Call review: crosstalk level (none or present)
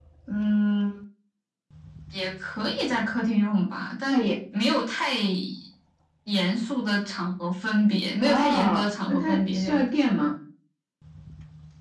present